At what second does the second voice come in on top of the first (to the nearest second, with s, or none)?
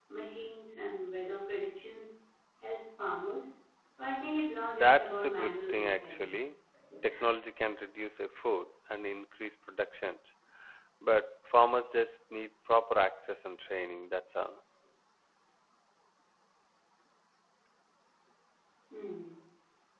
5 s